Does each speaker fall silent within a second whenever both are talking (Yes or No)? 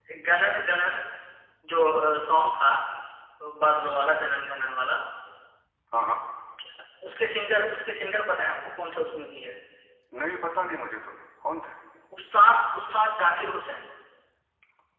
Yes